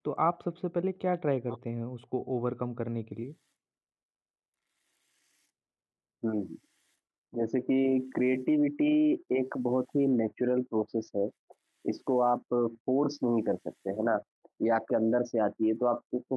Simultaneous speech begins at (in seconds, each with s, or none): none